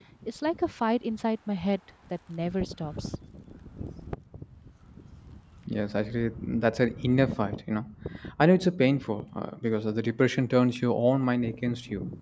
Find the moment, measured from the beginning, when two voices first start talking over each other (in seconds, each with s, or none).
none